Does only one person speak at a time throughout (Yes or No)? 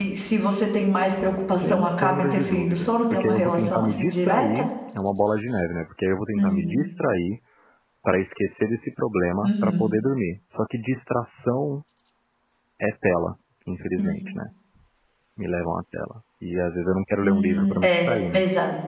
No